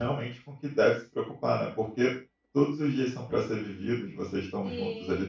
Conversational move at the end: taking over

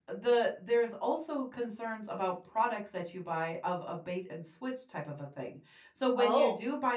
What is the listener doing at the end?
listening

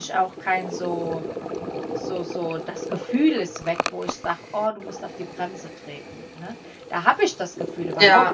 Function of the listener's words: listening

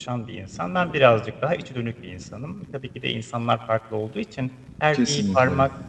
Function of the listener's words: listening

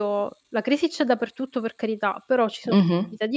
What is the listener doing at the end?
listening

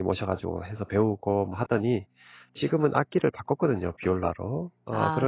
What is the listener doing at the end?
listening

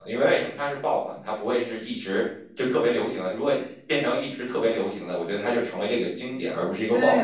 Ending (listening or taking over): taking over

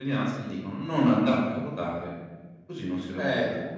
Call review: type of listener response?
taking over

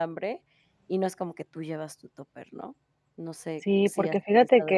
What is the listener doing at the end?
taking over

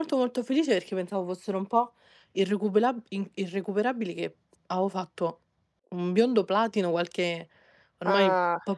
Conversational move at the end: listening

